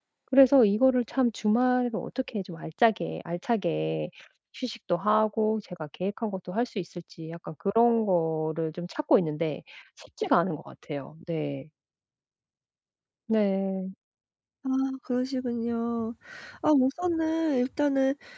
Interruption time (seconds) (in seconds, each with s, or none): none